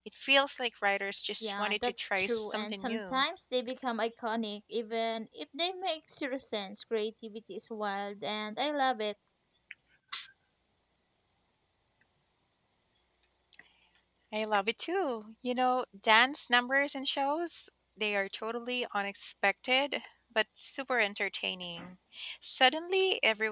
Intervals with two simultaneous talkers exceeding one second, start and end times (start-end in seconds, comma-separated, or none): 1.4-3.2